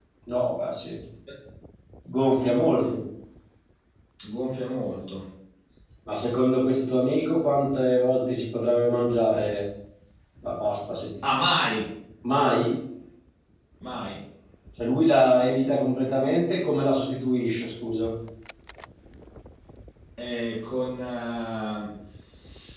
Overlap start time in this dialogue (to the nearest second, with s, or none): none